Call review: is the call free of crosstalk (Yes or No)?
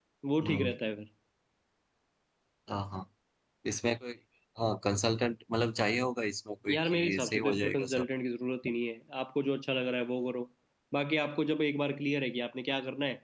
No